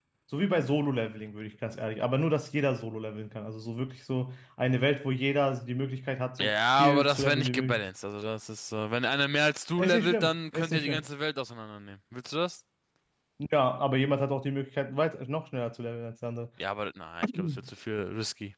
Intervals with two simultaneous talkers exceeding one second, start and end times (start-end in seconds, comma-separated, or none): 6.4-7.8, 9.8-11.1